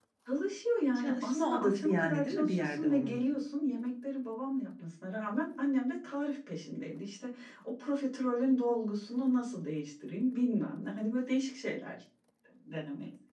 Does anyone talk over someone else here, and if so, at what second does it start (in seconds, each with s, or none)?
1.0 s